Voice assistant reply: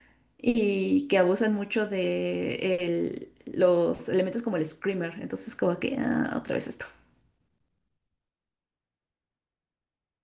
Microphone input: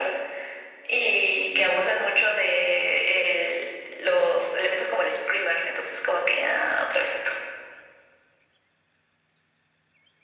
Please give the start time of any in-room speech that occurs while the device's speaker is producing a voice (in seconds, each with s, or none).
none